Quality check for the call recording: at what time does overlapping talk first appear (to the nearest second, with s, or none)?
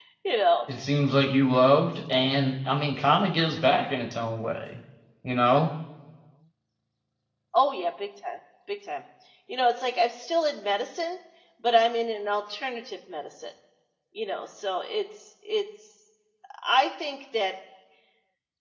none